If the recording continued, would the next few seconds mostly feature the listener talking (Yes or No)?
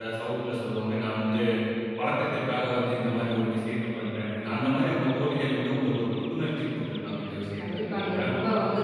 Yes